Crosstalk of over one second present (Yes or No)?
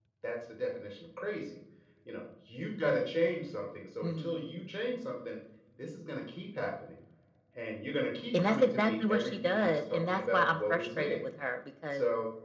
Yes